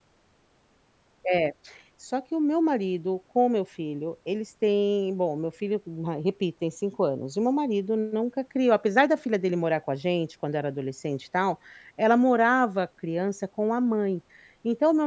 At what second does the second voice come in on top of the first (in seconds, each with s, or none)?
none